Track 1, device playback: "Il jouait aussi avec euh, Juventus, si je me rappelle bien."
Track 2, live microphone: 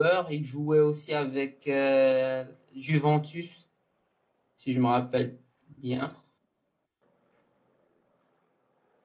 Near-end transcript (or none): none